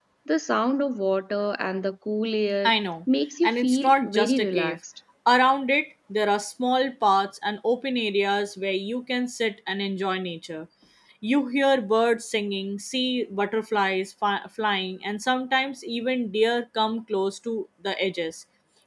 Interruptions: present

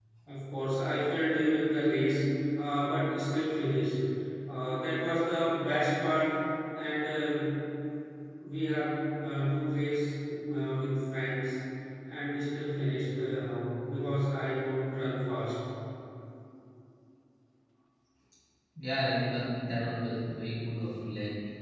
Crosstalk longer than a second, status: none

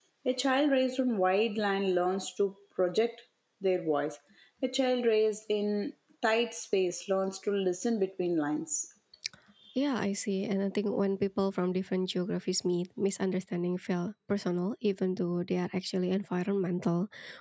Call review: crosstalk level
none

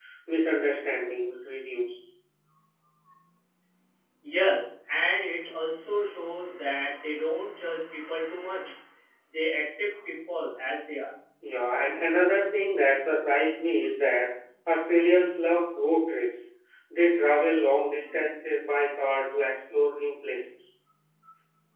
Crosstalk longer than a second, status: none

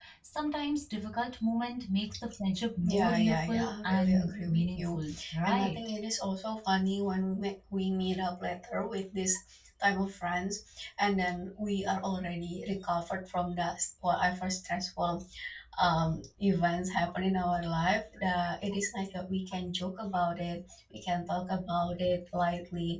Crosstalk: present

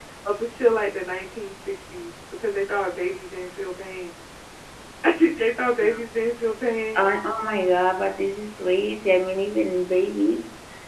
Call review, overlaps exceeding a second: none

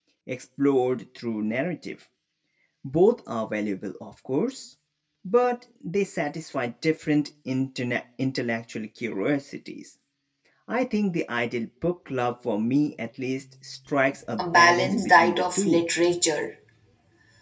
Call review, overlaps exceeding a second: present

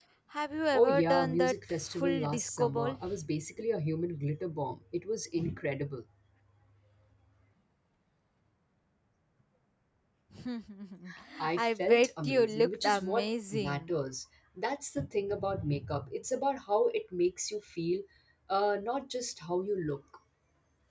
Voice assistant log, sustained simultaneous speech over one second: present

